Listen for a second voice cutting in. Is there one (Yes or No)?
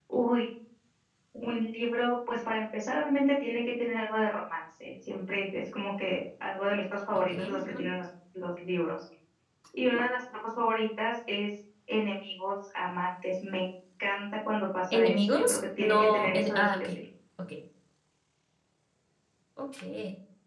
Yes